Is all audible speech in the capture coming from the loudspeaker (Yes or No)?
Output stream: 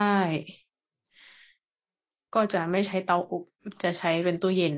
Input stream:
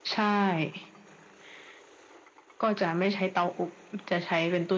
Yes